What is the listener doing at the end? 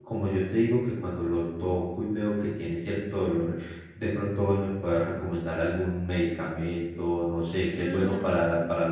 taking over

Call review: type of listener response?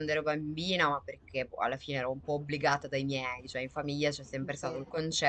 listening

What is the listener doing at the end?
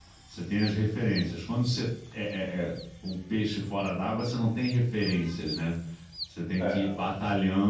listening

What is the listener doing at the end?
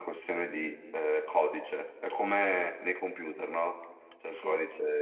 listening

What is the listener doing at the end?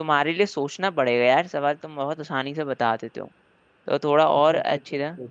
taking over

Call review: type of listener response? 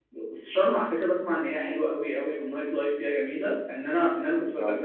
listening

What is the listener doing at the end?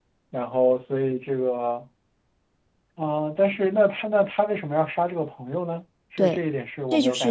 taking over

